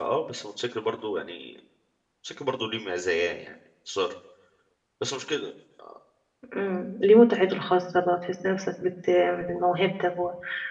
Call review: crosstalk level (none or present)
none